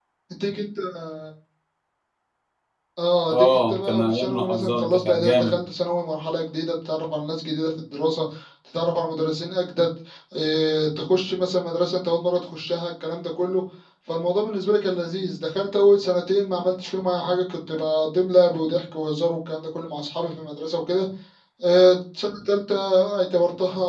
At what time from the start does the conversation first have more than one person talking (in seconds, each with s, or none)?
3.3 s